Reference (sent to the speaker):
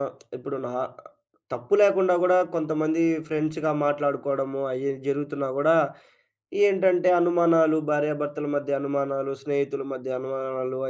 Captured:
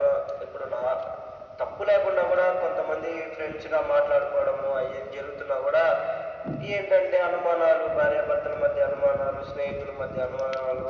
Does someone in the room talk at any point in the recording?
No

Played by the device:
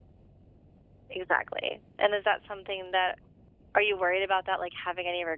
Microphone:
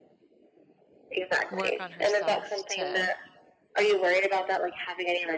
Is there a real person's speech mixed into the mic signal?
Yes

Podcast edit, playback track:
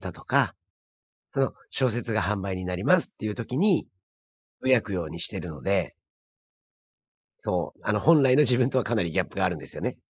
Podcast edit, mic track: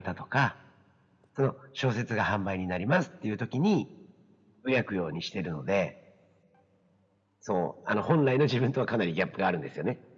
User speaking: No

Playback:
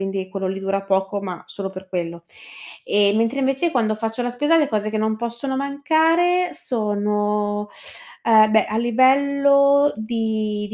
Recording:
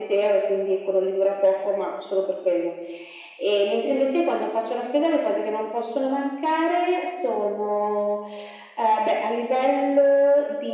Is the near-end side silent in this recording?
Yes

